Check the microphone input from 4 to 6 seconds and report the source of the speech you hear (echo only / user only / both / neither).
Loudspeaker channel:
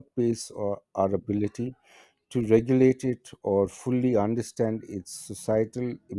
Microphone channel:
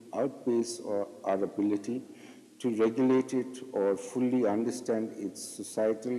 echo only